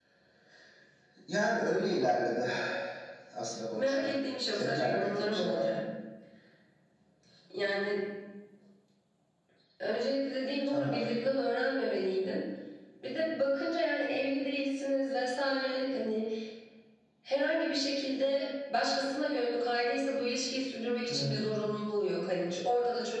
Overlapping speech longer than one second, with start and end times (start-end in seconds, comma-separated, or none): 4.5-5.8